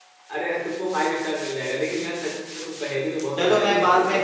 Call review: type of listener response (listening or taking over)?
taking over